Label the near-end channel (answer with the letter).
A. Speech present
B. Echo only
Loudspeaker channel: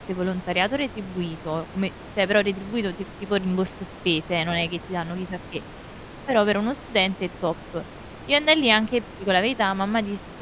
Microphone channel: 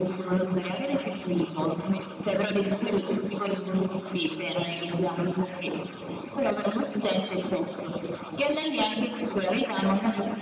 B